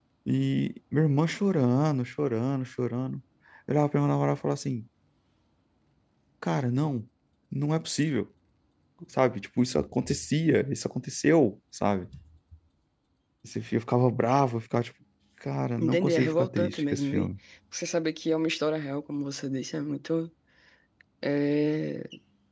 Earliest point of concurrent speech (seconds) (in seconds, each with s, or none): 15.8 s